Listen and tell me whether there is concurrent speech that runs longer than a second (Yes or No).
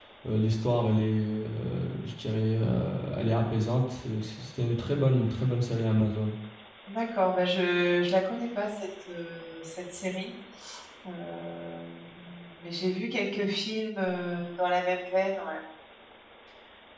No